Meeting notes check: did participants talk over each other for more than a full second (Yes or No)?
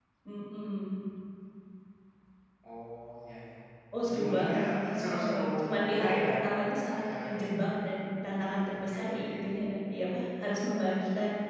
Yes